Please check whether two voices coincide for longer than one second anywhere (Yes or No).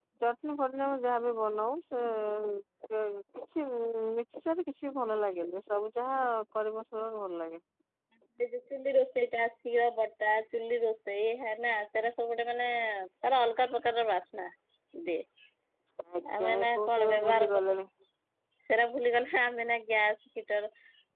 Yes